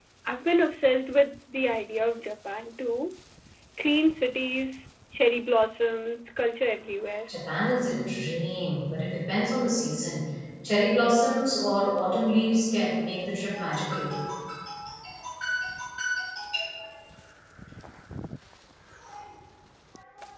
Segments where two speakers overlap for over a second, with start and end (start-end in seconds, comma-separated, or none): none